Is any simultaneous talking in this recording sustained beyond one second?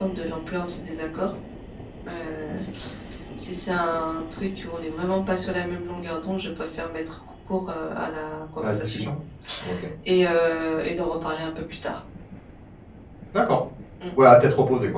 No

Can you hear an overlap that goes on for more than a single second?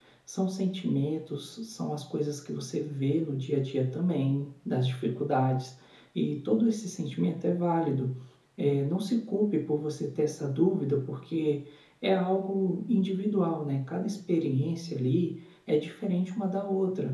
No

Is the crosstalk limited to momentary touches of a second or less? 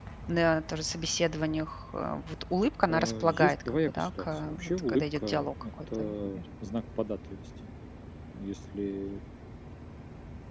No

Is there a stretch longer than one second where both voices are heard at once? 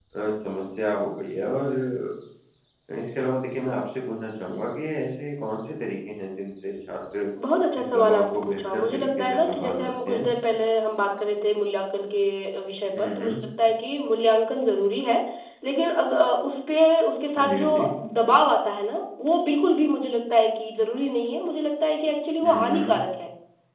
Yes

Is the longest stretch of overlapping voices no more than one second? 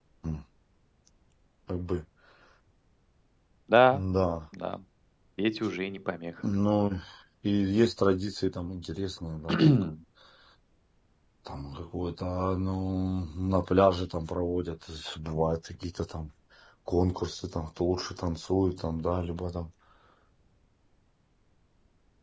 Yes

